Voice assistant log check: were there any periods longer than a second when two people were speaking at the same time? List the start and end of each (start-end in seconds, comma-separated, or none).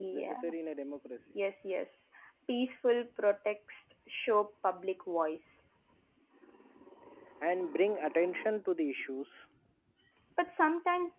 none